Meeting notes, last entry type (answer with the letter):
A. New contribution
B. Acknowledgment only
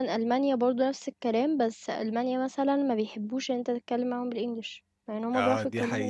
A